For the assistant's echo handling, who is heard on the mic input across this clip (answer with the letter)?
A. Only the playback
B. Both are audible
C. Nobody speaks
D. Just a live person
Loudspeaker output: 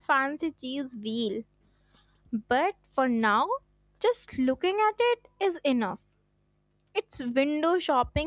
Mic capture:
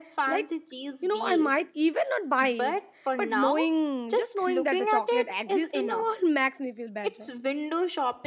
B